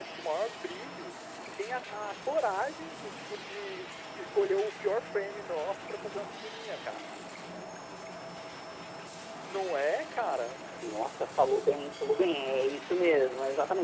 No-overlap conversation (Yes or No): Yes